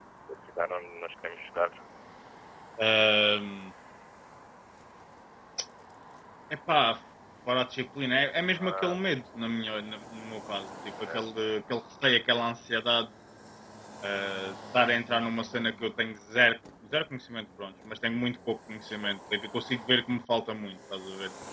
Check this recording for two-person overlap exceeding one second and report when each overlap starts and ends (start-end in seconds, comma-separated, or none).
none